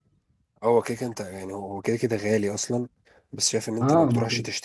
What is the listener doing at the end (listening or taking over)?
listening